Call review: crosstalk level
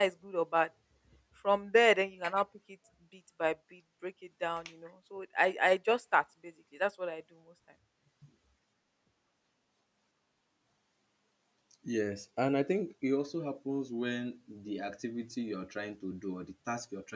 none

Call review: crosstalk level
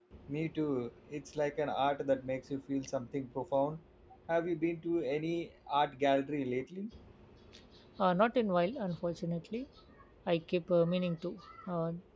none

